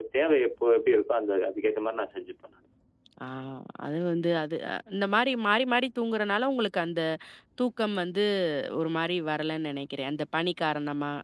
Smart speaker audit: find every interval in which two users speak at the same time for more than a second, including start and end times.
none

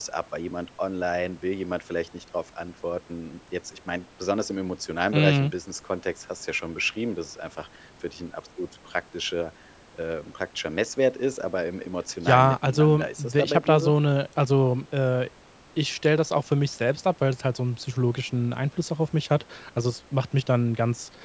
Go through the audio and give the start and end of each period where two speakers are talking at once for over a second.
12.3-13.9

